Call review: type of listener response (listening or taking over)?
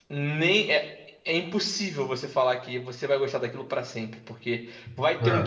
listening